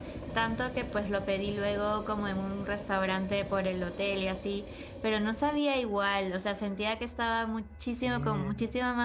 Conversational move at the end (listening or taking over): listening